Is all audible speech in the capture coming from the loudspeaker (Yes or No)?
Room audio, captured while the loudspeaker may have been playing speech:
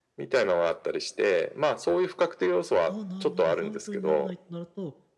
No